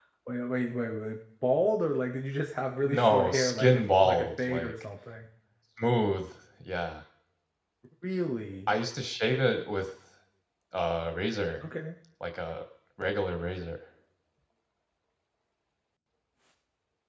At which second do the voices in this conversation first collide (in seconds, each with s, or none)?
2.8 s